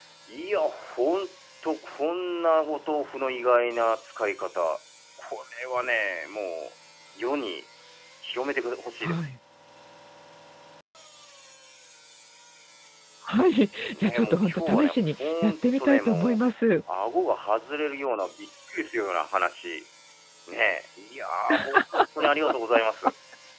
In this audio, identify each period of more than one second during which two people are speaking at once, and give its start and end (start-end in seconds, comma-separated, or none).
14.0-16.4